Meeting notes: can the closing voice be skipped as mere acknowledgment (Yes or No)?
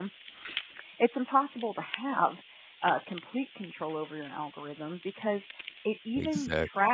Yes